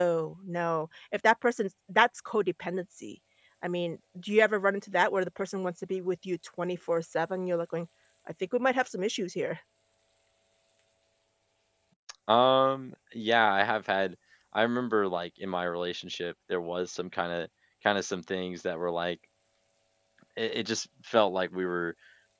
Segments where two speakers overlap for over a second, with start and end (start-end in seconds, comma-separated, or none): none